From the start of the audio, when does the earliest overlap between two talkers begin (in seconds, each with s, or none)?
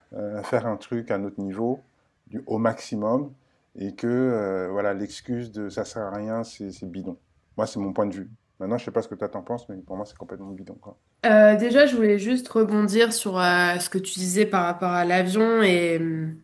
none